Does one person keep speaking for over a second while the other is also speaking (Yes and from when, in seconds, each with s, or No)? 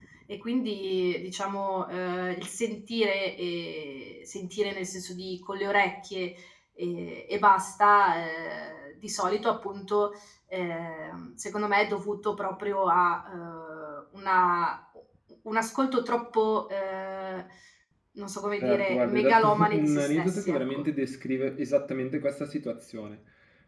Yes, from 18.6 s